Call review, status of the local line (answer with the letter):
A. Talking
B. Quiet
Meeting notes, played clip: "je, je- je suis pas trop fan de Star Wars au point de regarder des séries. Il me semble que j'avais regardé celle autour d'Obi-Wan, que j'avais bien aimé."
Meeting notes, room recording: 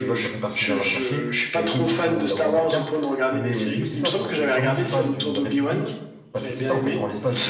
A